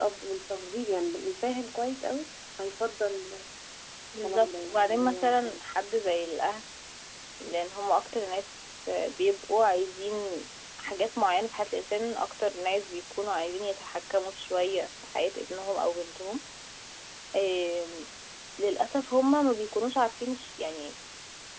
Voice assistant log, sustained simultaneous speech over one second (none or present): present